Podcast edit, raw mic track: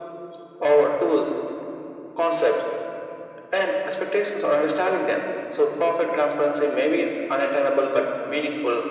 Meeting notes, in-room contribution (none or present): none